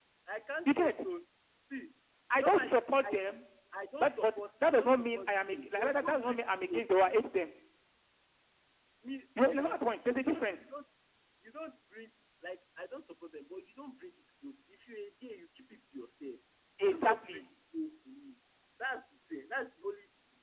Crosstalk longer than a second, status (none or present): present